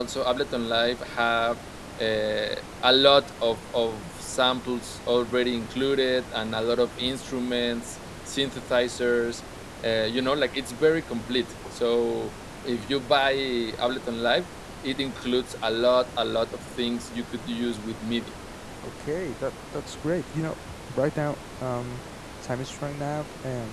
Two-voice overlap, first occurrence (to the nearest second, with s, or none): none